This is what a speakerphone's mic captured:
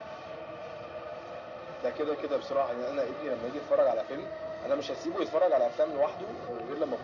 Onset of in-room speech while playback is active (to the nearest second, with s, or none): none